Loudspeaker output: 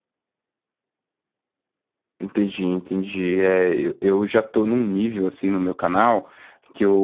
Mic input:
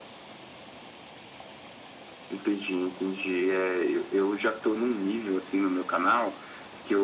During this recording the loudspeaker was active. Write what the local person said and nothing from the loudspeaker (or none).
none